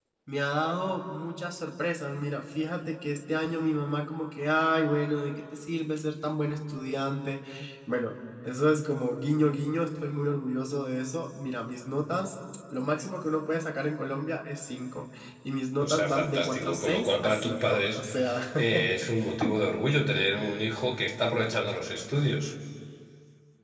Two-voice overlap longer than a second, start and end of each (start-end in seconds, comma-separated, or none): 15.8-18.0